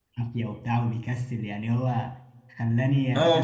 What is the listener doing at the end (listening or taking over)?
taking over